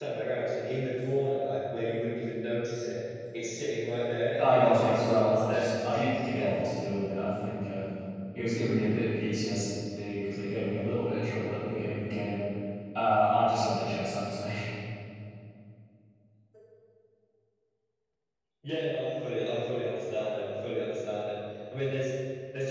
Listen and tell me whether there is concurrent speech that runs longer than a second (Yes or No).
Yes